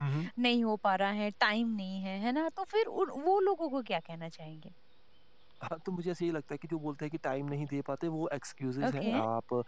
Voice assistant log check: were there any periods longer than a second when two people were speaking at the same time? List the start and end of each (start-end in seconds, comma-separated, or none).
none